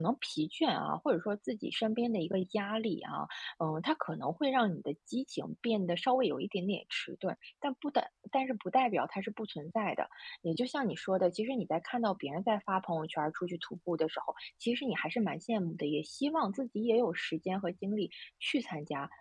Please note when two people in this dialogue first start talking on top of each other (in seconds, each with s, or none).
none